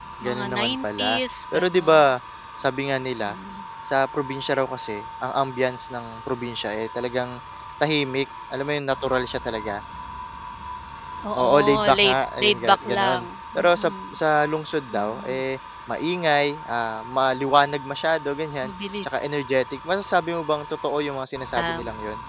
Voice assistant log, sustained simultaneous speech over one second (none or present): present